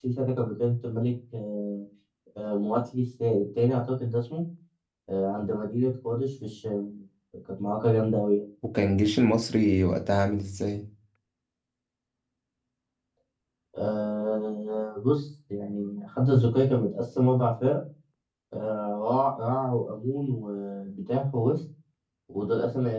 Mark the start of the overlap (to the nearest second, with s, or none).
none